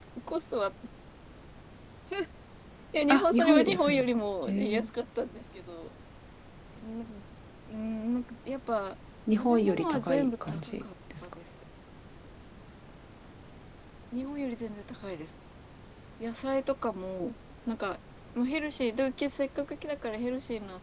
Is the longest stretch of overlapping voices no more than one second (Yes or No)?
No